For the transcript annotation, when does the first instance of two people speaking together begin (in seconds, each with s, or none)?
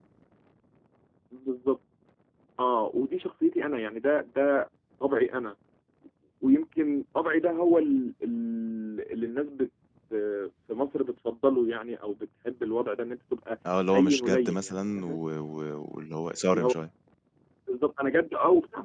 13.9 s